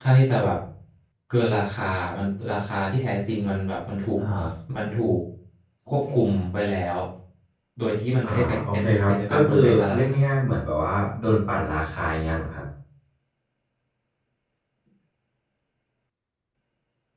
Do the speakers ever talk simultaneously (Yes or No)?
Yes